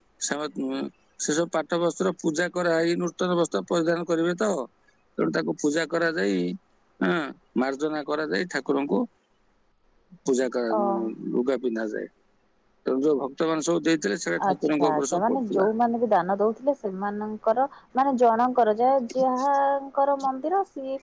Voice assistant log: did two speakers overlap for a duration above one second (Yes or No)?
Yes